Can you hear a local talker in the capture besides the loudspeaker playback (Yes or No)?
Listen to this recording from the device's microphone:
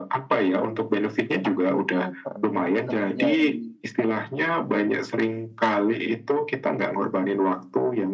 Yes